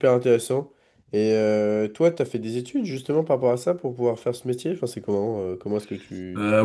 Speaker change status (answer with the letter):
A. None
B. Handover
B